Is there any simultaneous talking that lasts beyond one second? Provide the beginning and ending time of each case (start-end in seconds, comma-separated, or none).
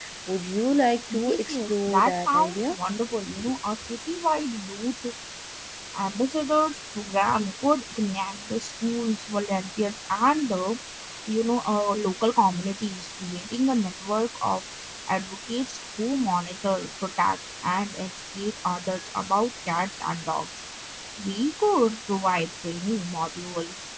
1.1-2.8